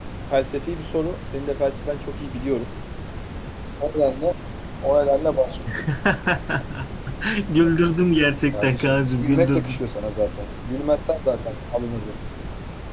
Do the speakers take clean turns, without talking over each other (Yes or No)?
No